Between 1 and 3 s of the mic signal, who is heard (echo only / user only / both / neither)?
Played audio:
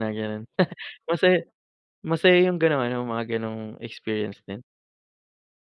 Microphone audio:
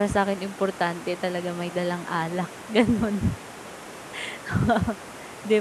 user only